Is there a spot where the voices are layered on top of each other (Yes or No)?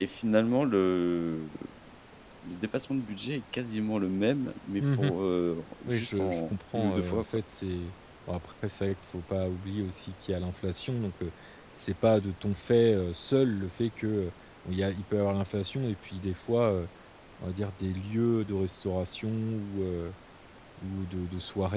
Yes